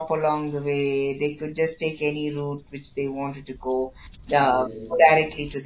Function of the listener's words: listening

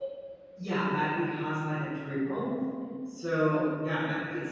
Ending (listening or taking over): listening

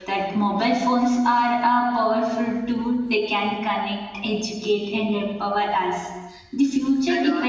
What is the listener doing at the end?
listening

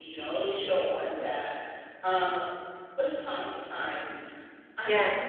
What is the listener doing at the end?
listening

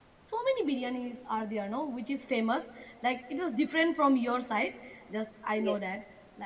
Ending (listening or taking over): listening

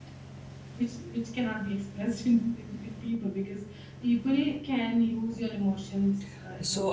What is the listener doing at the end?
taking over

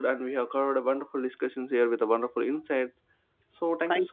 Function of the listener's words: listening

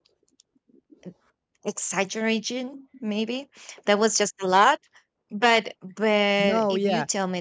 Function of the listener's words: listening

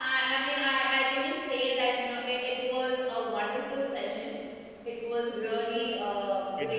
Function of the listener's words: listening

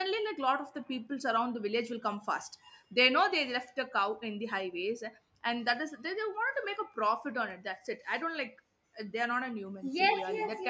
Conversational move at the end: taking over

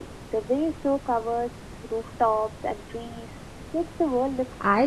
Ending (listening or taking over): taking over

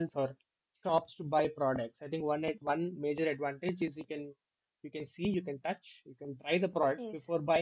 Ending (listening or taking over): listening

